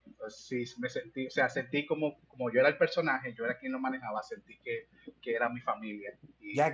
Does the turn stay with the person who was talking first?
No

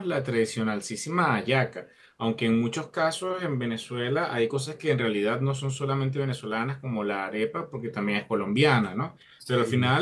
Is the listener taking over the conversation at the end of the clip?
No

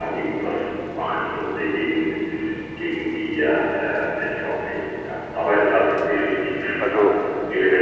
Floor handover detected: No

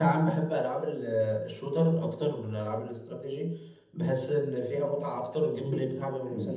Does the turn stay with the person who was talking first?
Yes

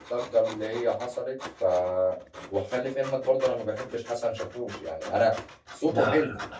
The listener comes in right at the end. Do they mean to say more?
No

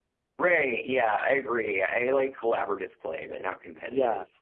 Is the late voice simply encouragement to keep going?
No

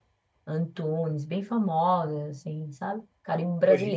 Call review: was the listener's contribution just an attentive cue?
No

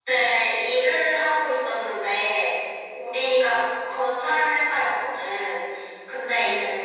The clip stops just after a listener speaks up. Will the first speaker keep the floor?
Yes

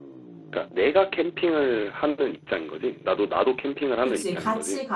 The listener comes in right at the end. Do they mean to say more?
Yes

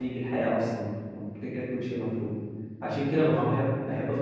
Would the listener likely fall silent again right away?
Yes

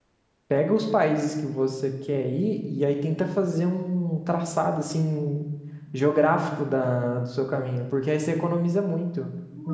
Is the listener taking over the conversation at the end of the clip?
Yes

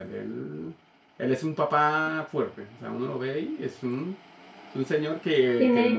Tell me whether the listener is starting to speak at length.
Yes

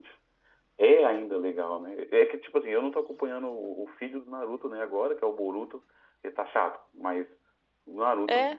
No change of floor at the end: Yes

